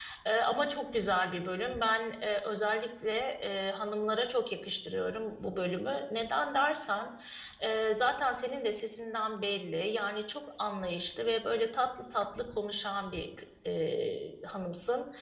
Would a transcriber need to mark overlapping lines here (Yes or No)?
No